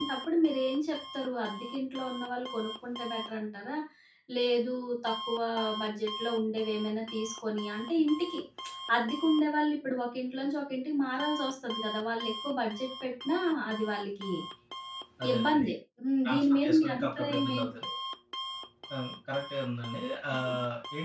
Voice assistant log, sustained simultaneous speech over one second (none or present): present